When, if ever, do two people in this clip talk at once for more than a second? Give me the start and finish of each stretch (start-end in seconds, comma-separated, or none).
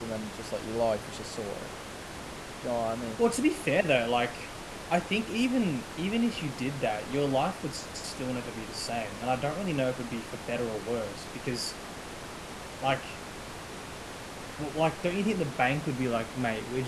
none